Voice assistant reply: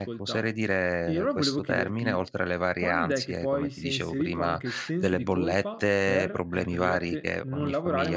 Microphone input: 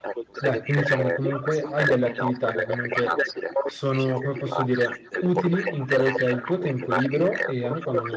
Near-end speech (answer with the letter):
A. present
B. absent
A